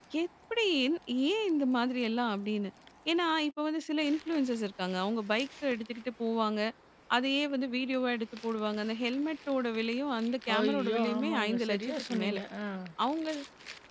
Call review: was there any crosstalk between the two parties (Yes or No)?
Yes